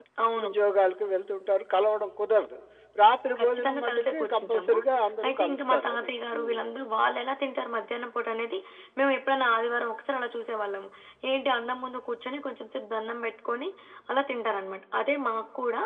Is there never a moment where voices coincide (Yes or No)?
No